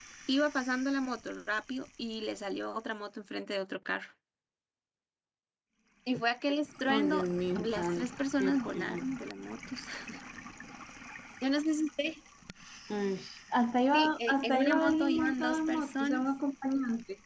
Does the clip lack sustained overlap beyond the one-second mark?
No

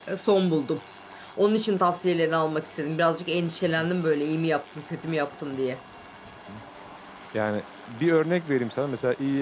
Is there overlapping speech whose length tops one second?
No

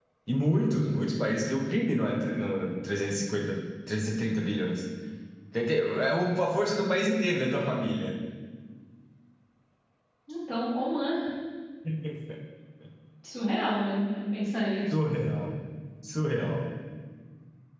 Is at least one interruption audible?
No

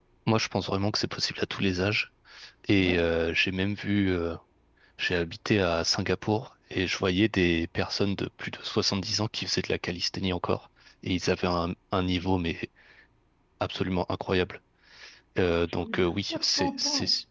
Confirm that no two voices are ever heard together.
No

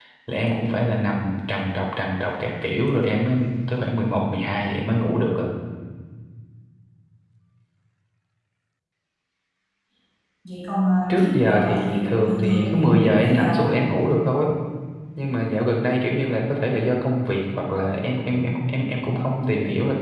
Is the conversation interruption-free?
No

